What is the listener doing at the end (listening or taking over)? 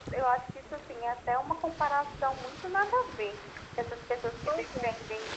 listening